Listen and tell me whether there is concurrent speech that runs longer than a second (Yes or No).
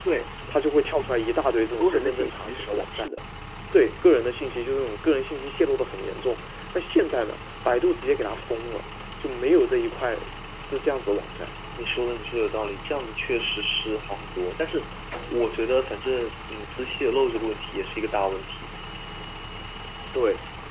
Yes